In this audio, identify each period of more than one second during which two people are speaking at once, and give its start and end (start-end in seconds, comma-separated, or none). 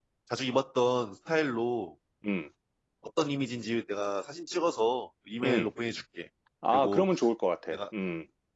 none